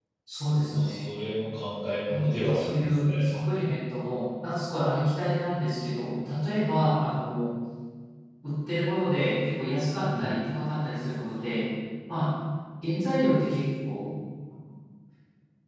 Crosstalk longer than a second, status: present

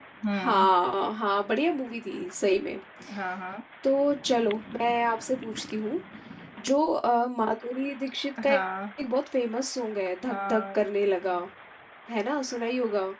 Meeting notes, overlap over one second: none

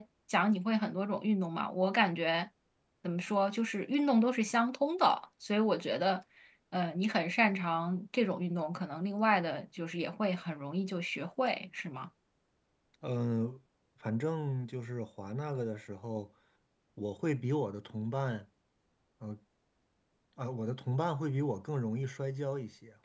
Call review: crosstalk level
none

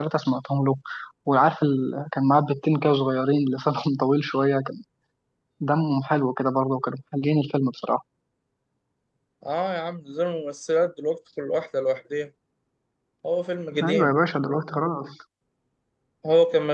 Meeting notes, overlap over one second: none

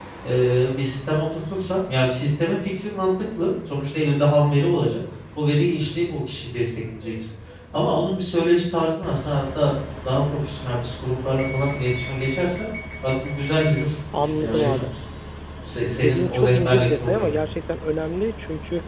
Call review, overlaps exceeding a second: present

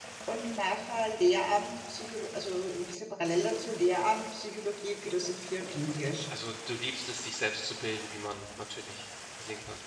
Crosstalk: none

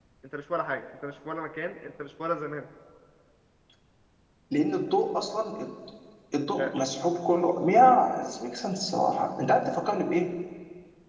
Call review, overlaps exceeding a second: none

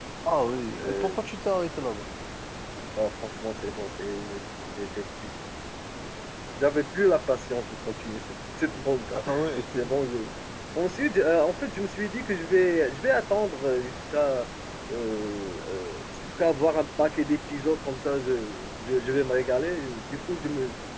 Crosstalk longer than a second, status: none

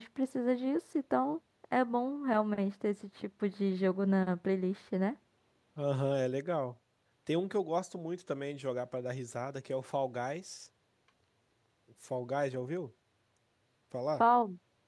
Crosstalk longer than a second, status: none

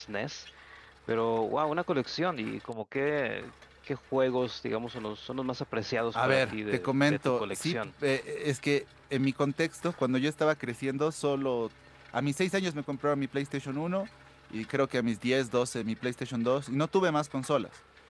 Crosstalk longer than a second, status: present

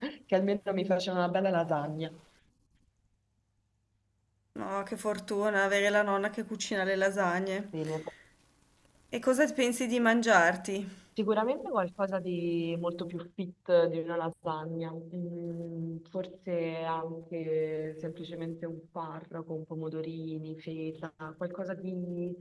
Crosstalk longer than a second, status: none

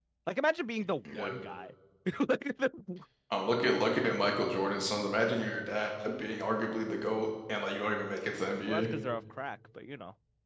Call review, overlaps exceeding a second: none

